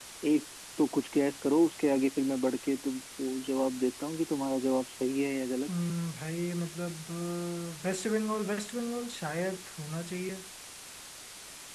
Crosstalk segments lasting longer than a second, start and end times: none

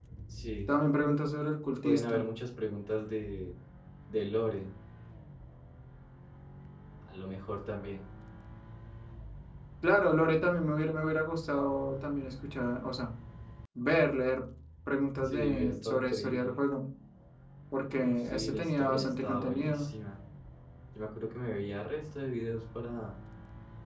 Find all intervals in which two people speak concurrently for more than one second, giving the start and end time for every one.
15.2-16.6, 17.9-19.9

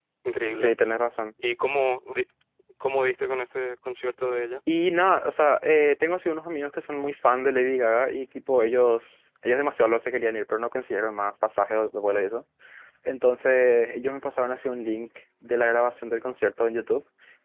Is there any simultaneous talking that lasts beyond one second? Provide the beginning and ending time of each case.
none

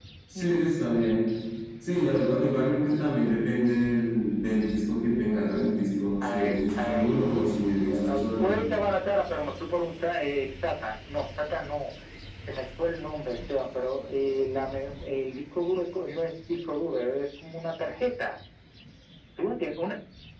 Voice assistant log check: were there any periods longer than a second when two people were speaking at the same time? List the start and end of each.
6.2-8.6

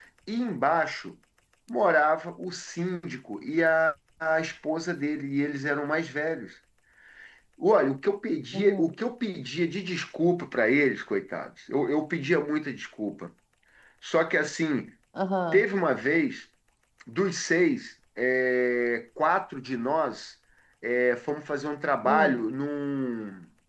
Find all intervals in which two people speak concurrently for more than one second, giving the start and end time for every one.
none

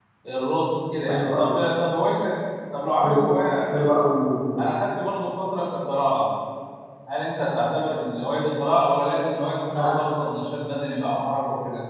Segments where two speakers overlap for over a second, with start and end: none

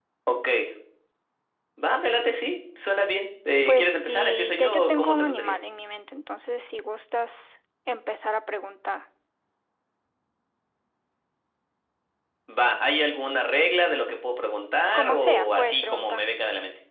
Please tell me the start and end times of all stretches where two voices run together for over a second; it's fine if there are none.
3.7-5.5, 14.9-16.2

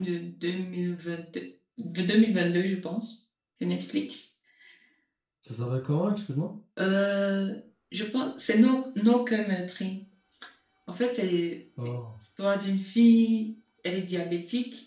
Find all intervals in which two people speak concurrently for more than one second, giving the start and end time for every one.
none

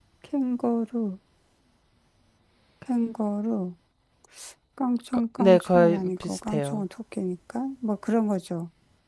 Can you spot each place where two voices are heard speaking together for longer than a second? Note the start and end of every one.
5.4-6.8

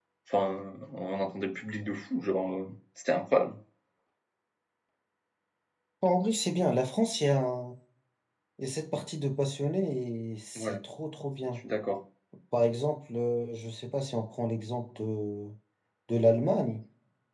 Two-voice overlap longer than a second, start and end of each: none

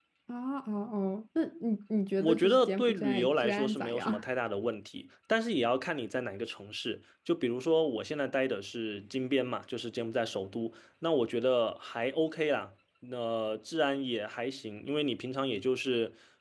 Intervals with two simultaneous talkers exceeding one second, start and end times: 2.2-4.2

